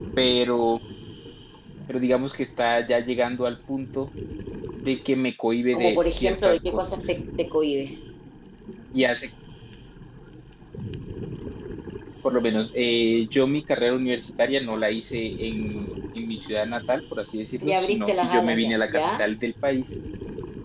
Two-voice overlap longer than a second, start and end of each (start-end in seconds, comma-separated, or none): 5.7-7.2, 17.6-19.2